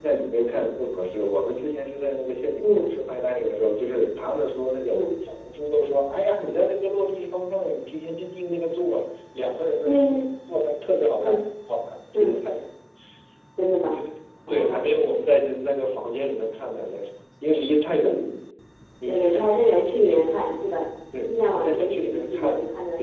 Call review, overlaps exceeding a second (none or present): present